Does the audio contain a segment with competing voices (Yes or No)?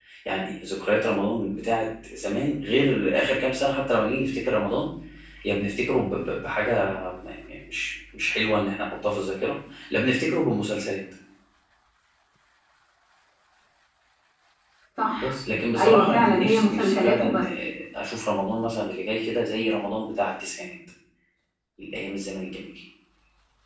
Yes